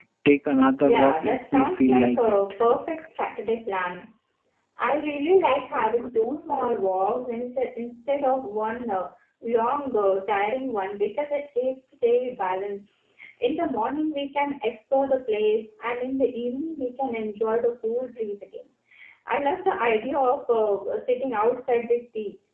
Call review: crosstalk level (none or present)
present